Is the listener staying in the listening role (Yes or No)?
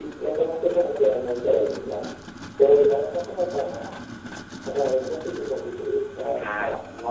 Yes